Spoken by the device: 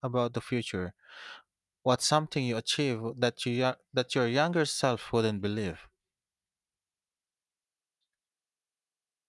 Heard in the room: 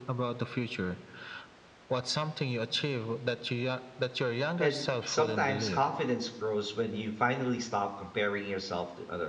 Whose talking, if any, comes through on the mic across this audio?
both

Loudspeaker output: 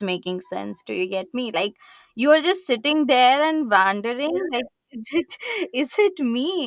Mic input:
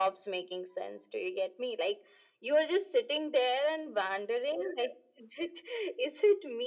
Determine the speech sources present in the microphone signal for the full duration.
echo only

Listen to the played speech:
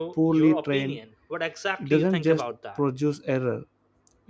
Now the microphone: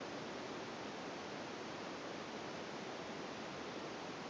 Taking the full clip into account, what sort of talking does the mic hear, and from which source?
neither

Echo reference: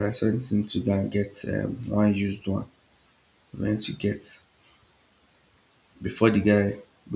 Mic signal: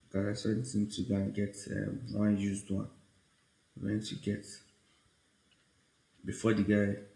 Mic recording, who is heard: echo only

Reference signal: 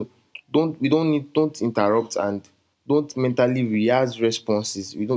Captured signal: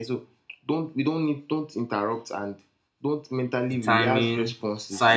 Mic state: both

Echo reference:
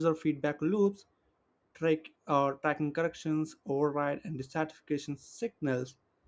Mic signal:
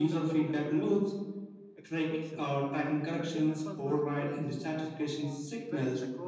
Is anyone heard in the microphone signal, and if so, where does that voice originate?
both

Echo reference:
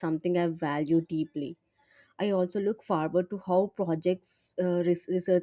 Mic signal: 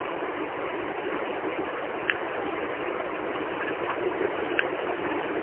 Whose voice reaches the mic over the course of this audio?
neither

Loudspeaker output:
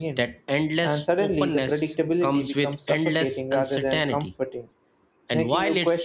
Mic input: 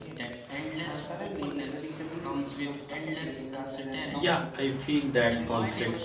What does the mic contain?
both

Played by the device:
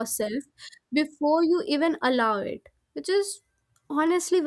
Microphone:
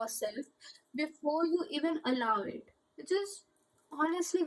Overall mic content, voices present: echo only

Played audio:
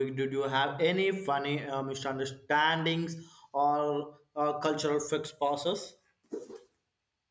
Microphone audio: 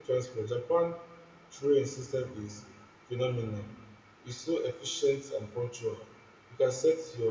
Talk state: user only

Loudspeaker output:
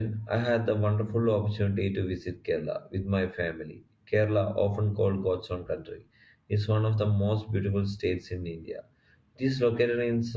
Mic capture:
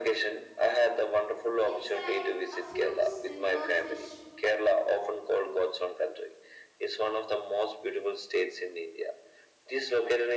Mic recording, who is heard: both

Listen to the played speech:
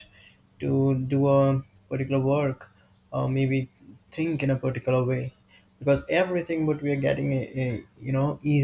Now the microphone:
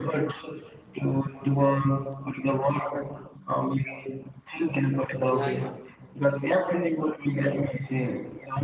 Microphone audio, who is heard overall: both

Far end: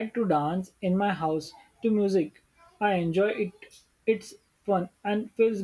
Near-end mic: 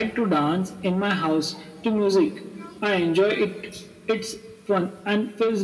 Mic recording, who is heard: echo only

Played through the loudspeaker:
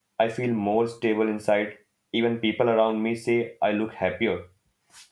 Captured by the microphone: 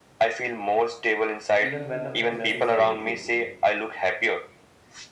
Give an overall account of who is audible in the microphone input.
both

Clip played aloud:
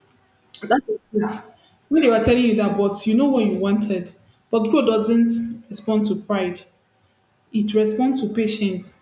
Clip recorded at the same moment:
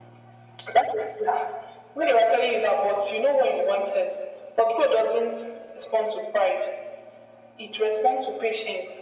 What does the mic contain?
echo only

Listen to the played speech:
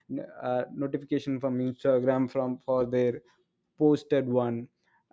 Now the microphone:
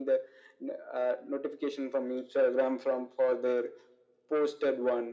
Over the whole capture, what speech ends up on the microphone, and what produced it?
echo only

